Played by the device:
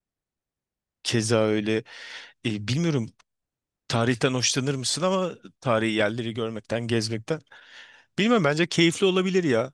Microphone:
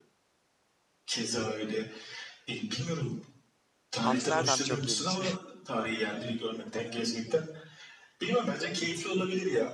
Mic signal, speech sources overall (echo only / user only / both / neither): both